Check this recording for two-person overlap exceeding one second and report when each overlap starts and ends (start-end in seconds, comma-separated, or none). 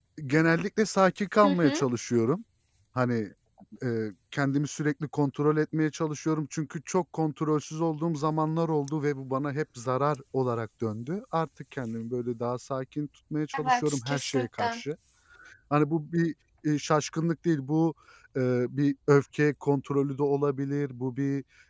13.5-14.8